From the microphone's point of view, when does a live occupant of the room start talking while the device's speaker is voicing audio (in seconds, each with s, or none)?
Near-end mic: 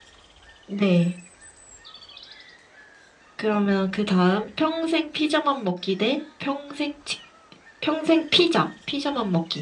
none